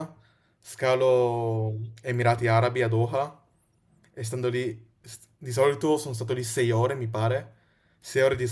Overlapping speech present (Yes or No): No